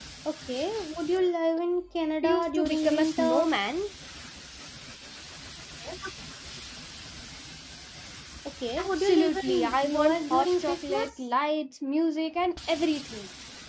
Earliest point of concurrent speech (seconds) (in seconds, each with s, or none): 2.2 s